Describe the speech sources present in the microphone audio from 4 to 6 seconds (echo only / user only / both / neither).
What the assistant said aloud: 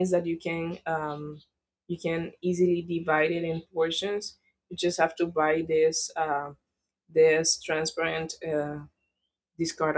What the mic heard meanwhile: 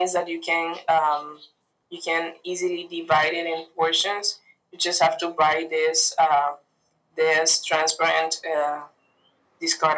echo only